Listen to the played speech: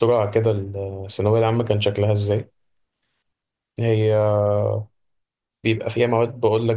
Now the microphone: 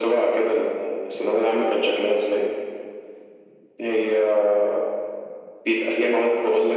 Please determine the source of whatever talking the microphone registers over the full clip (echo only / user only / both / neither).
echo only